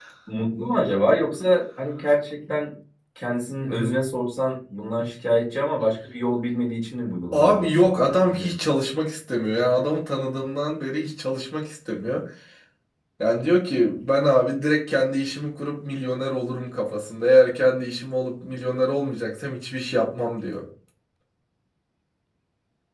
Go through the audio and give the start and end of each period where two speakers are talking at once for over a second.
7.3-8.5

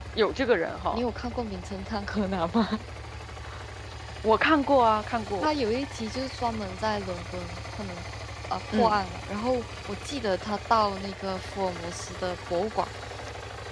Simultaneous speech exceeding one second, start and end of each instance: none

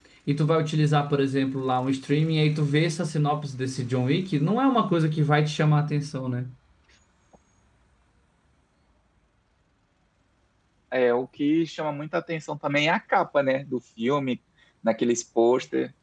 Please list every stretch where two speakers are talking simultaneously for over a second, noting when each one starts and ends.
none

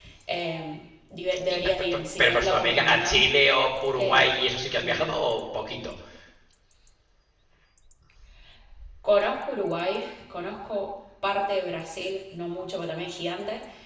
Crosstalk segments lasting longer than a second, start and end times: 1.5-3.2

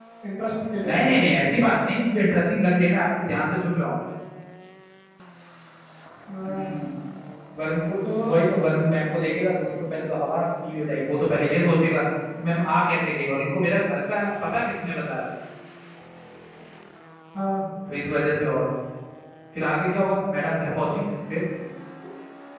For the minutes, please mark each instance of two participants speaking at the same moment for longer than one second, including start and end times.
none

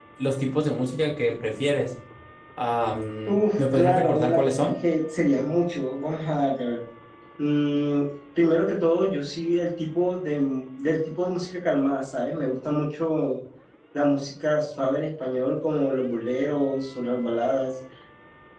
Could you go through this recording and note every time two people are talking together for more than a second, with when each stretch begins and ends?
3.3-4.7

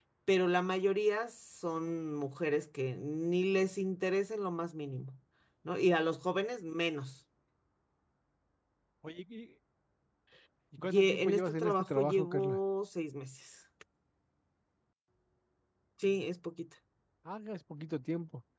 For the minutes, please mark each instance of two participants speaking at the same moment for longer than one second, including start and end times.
10.8-12.6

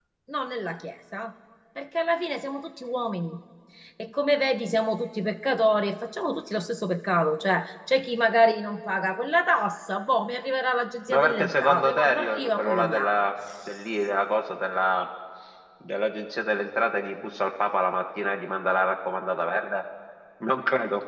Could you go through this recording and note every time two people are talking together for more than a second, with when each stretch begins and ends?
11.1-13.2

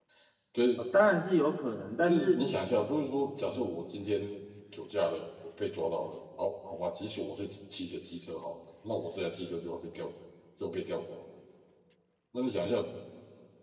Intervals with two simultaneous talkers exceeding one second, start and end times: none

